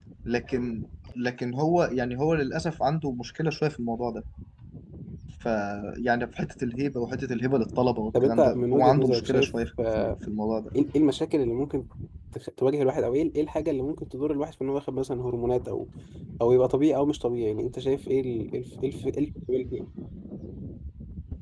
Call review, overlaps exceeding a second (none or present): present